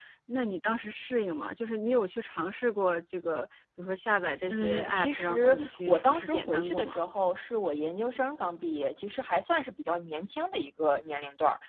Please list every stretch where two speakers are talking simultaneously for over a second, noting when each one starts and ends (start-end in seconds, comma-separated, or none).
4.5-7.0